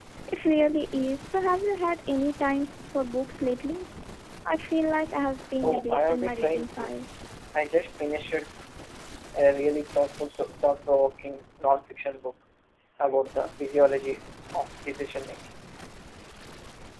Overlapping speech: Yes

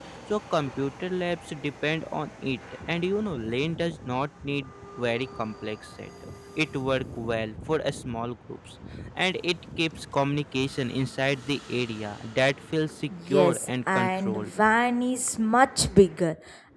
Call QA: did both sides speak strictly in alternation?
No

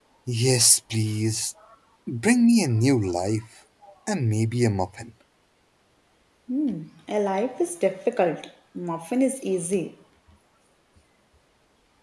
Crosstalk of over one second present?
No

